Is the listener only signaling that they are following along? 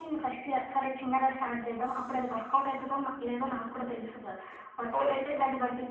Yes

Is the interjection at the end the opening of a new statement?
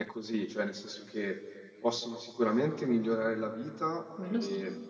No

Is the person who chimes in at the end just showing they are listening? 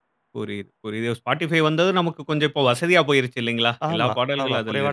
No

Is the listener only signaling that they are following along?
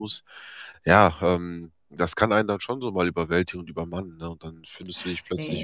Yes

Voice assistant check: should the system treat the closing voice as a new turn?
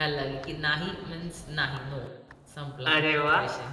Yes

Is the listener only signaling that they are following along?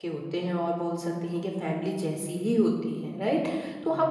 Yes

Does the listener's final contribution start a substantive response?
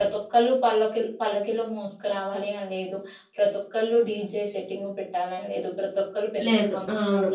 No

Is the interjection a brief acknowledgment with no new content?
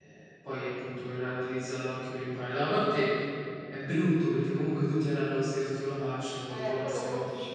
No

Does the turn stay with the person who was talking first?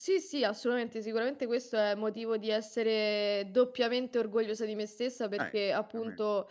Yes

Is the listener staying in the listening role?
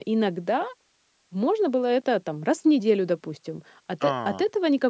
Yes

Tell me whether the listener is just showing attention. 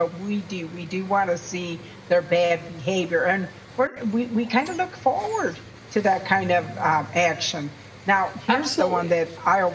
Yes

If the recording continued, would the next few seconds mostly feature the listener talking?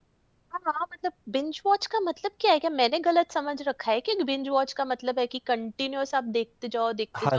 Yes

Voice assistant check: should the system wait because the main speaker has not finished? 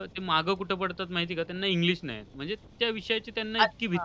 No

